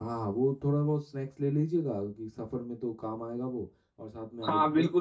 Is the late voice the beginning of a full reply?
Yes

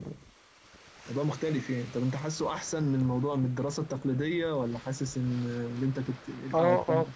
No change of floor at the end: No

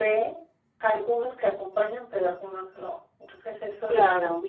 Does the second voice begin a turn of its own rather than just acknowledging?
No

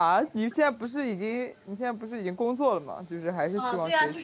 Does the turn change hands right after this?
Yes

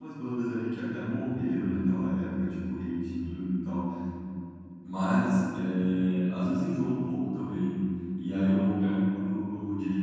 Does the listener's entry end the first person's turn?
No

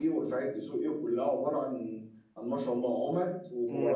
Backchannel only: No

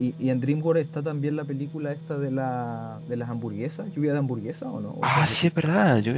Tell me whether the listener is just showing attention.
No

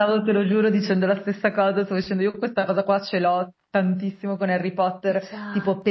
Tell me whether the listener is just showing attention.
Yes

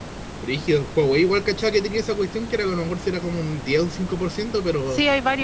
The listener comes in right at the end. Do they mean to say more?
Yes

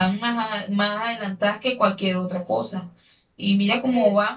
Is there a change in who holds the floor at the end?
No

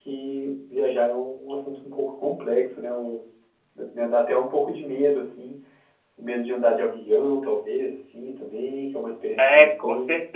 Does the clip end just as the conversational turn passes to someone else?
Yes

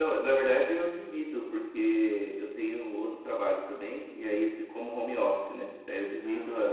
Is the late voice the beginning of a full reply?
No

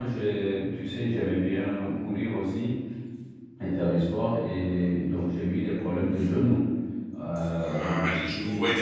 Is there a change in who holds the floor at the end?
Yes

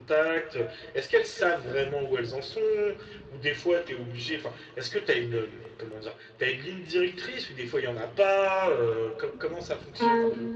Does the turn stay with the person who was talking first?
No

